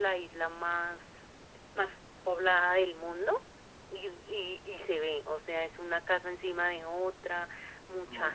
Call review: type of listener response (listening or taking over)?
listening